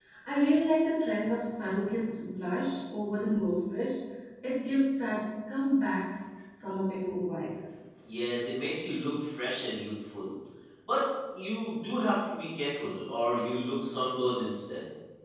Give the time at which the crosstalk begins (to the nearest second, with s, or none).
none